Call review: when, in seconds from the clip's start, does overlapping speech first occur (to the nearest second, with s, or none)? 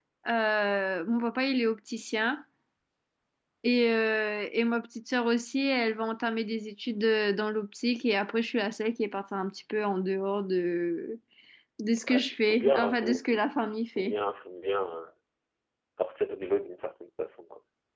12 s